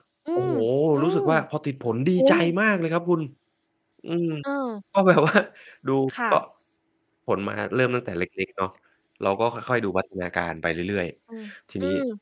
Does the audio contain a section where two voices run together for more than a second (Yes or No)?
No